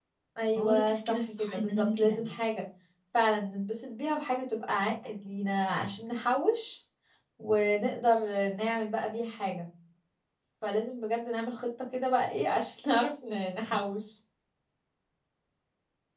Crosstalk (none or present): present